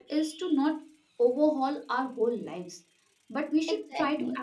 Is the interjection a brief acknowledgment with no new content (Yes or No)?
Yes